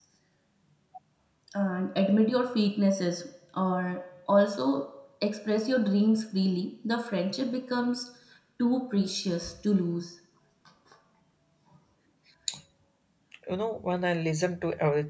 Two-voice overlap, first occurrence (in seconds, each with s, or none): none